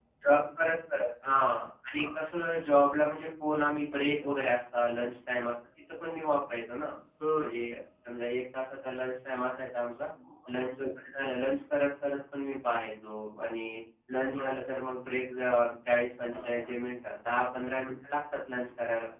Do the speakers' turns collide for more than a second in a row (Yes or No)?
No